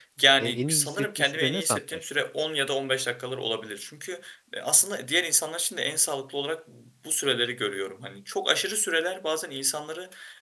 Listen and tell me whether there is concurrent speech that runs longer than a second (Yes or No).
Yes